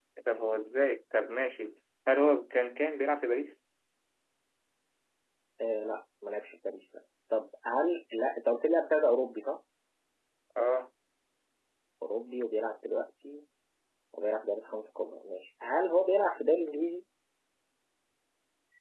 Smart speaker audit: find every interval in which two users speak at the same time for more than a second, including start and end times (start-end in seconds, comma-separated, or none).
none